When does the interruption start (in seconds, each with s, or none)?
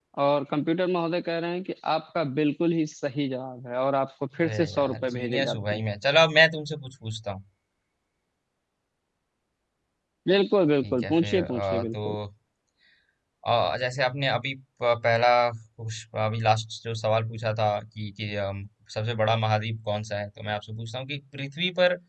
4.5 s